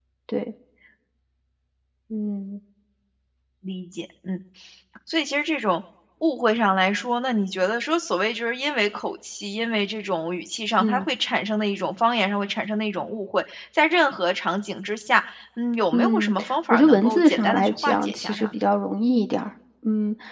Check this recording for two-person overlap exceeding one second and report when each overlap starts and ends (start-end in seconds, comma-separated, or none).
15.9-18.6